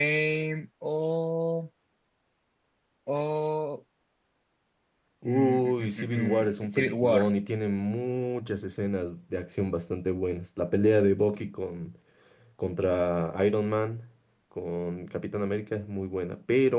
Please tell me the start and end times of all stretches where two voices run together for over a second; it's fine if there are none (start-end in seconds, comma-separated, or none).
5.2-7.3